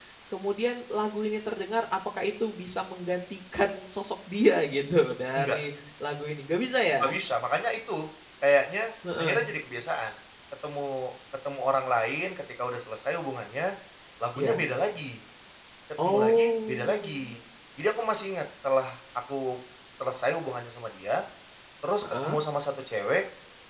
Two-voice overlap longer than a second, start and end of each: 16.0-17.4

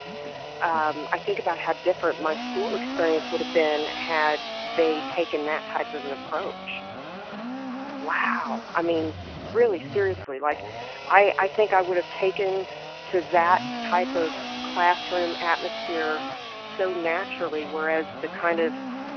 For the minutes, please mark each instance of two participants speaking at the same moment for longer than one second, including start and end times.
none

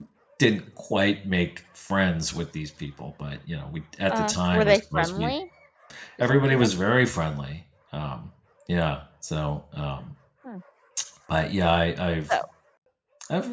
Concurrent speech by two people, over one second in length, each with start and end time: 4.1-5.3

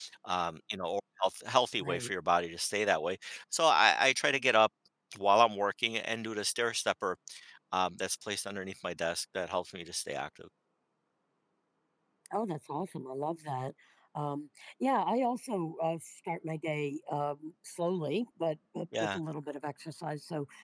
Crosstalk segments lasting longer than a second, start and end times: none

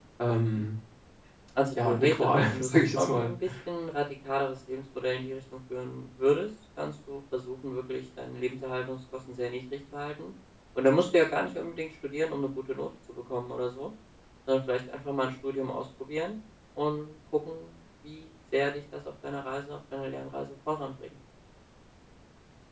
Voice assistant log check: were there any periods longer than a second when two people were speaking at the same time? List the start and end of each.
1.8-3.3

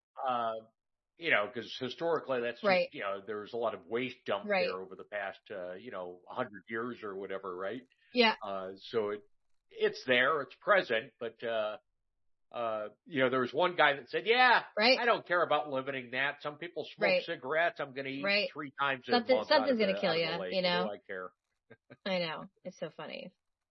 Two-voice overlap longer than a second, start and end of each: 19.0-20.9

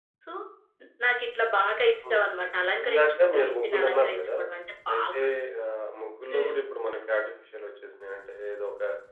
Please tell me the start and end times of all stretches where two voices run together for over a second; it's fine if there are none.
2.8-4.3

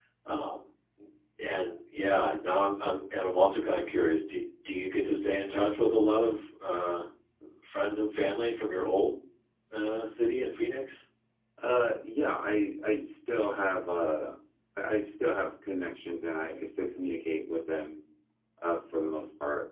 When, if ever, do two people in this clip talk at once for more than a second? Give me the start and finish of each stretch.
none

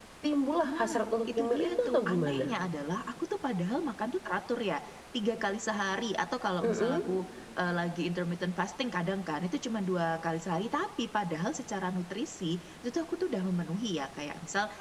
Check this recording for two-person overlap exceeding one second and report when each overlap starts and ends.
0.6-2.5

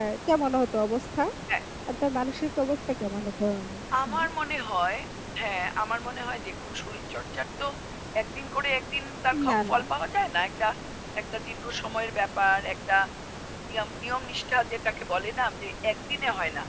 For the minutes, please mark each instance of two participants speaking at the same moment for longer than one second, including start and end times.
none

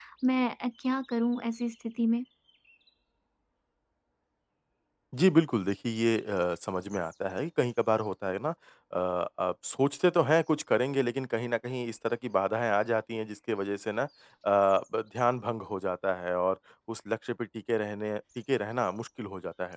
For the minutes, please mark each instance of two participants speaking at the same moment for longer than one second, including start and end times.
none

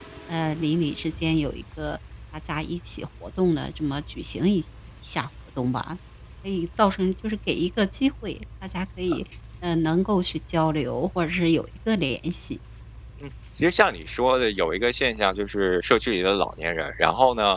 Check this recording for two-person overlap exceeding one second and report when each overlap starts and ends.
none

